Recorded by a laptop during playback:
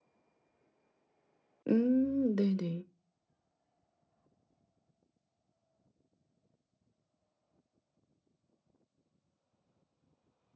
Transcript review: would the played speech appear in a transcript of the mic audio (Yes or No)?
No